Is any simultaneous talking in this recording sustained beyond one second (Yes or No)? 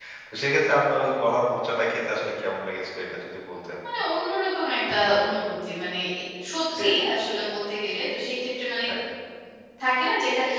No